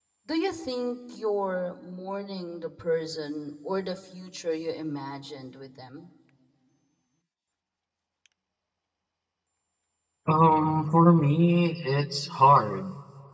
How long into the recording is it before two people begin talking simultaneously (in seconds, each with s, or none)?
none